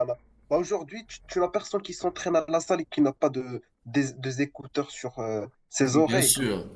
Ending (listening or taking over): taking over